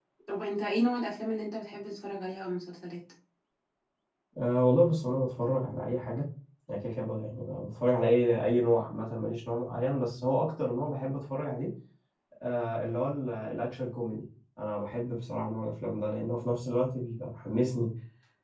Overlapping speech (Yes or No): No